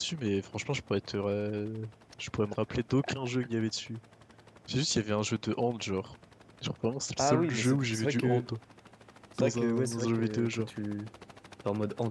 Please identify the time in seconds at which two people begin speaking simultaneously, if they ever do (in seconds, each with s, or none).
7.2 s